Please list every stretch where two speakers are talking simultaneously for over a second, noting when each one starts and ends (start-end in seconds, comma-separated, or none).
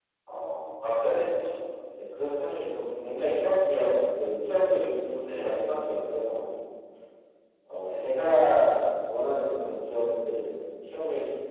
none